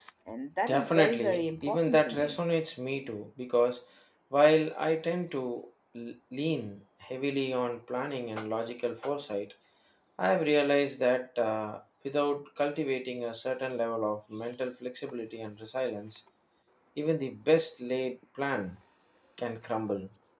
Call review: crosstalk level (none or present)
present